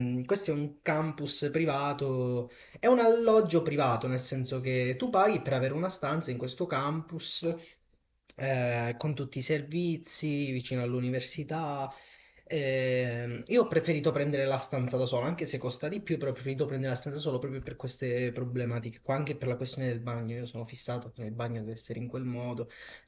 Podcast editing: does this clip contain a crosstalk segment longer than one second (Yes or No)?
No